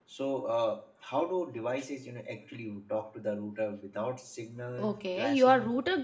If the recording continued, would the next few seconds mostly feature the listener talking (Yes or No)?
Yes